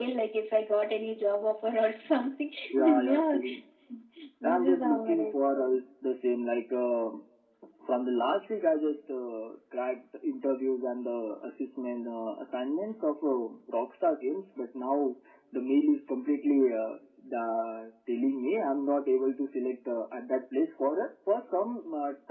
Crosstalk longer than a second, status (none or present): present